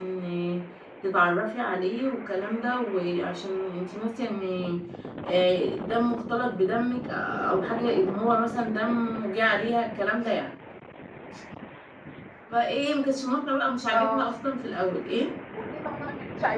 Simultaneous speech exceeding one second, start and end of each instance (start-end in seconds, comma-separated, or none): none